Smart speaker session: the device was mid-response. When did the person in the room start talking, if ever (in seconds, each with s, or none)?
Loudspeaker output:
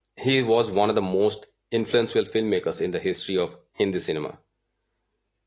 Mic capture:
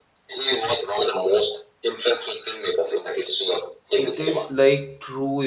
3.9 s